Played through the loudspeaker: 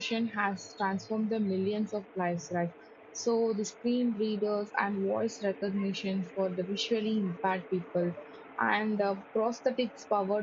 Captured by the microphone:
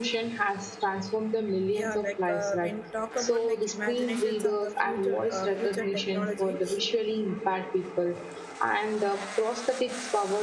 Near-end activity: present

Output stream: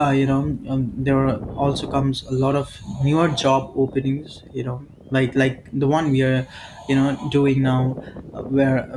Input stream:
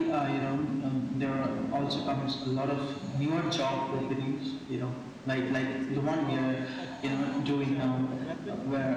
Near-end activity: present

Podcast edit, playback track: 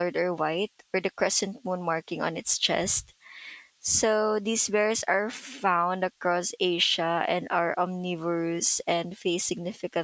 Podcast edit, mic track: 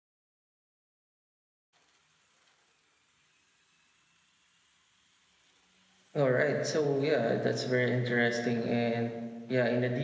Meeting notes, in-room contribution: present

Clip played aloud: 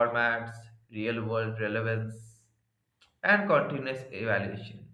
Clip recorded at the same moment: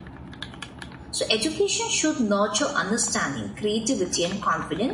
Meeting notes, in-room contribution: present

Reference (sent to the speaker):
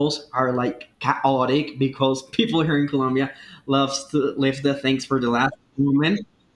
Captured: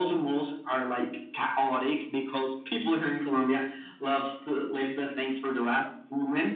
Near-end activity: none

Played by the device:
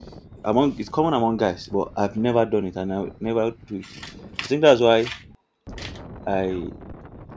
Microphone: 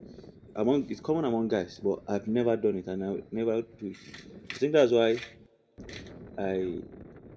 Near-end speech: none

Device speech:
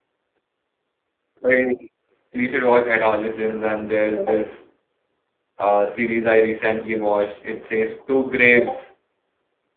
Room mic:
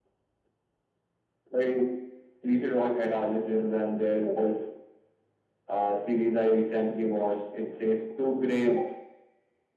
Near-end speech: none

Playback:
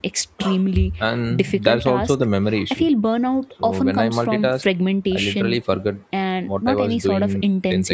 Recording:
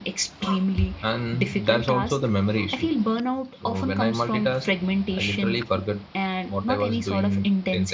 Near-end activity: none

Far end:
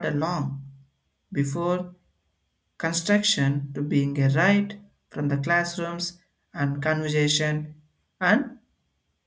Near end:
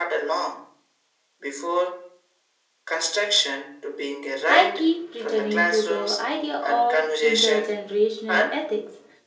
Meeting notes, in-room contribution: present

